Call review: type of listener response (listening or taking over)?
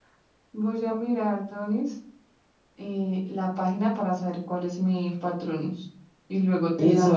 taking over